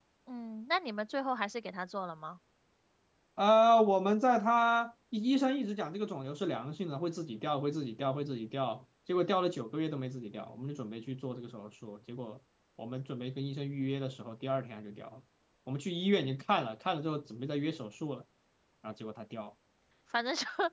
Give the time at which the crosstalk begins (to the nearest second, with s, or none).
none